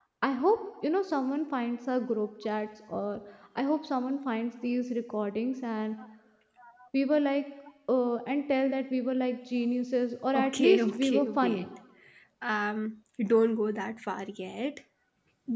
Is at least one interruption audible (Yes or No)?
Yes